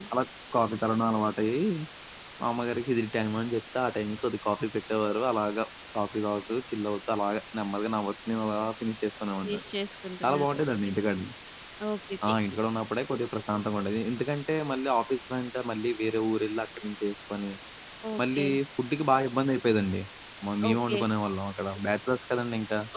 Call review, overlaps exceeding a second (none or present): none